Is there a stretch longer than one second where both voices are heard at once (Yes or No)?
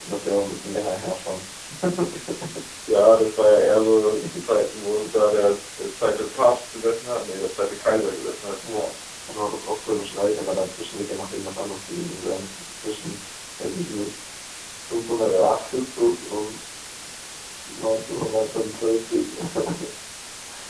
No